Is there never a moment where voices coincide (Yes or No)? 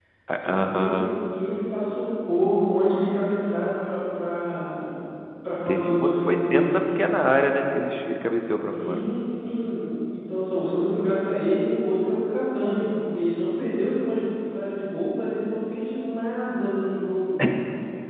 No